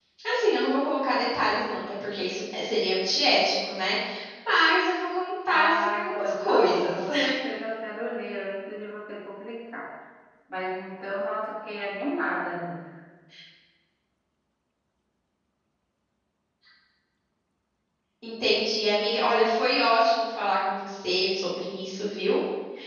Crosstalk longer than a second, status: present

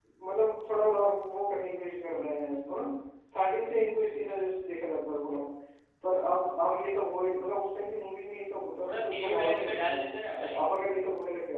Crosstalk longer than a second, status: present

